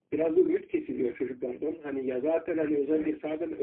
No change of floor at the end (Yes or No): Yes